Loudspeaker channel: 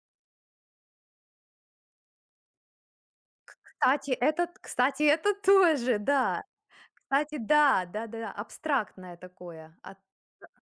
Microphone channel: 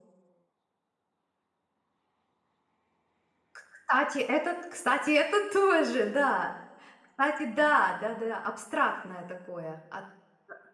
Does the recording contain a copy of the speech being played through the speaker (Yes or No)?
Yes